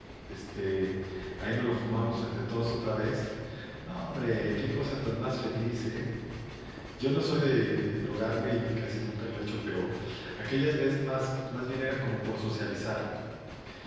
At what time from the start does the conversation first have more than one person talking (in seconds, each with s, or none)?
none